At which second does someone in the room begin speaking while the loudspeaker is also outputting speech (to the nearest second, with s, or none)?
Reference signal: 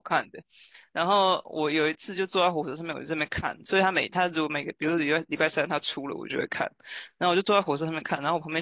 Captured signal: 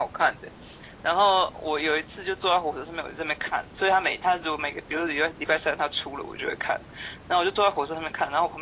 none